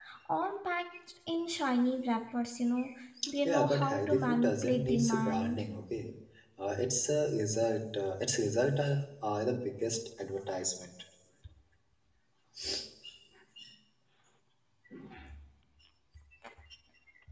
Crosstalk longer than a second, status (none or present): present